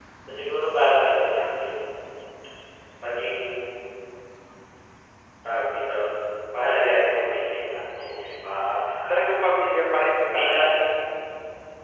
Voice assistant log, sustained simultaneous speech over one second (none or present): none